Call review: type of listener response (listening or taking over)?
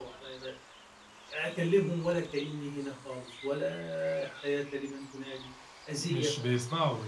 taking over